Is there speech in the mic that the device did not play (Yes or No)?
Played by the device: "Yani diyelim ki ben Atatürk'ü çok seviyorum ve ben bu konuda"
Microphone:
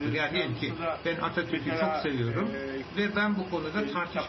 Yes